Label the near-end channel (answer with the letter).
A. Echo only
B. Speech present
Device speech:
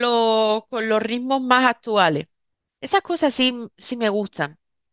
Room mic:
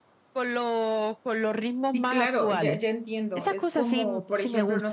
B